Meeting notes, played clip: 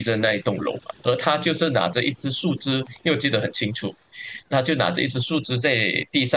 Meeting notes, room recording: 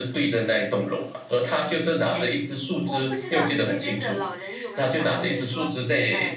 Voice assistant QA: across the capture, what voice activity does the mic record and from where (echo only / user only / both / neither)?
both